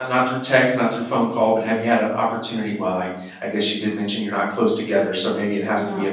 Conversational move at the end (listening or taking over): listening